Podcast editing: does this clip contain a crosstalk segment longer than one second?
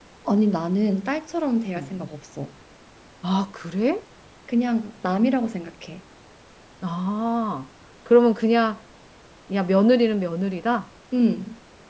No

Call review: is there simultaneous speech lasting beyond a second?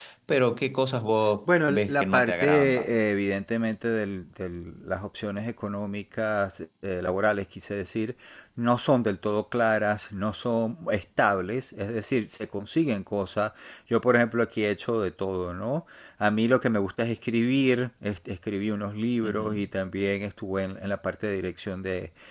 Yes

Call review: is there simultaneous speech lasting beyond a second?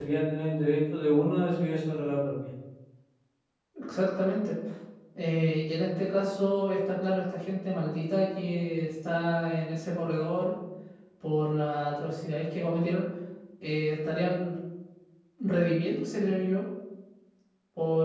No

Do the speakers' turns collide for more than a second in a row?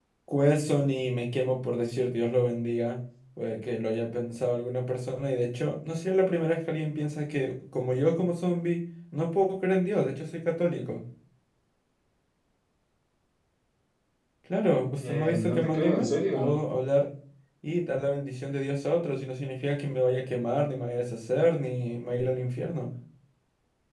Yes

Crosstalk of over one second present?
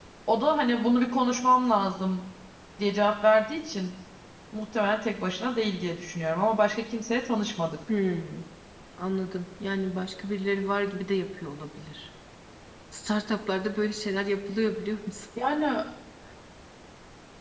No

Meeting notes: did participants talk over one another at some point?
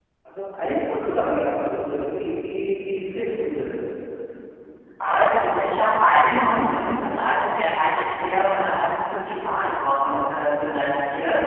No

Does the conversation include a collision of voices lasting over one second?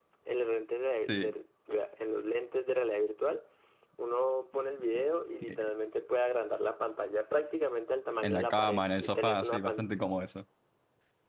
Yes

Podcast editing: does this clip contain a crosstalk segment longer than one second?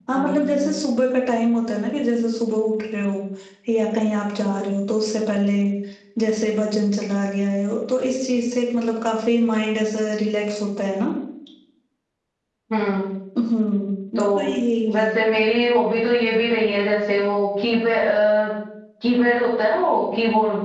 No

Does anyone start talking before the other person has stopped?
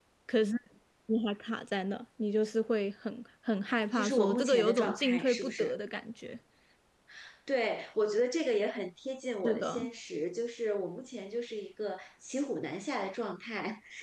Yes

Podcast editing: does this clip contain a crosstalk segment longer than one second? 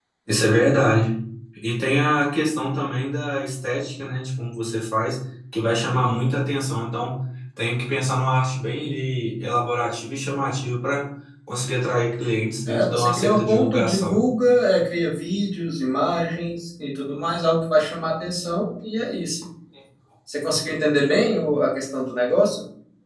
Yes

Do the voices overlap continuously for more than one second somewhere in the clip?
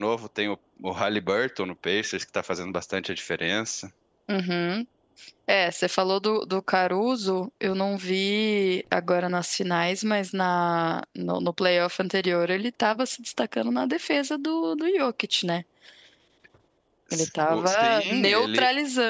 Yes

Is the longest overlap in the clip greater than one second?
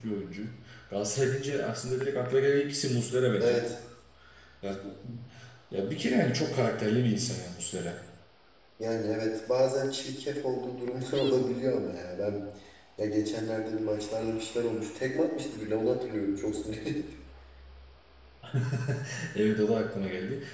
No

